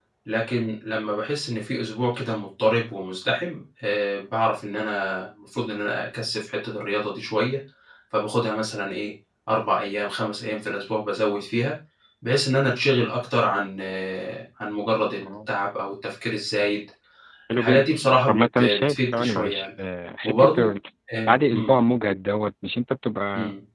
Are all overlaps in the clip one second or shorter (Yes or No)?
No